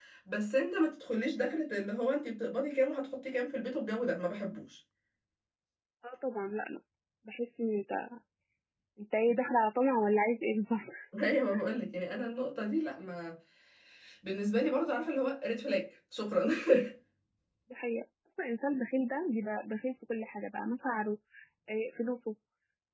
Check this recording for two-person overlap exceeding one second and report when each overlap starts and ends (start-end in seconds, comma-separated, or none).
none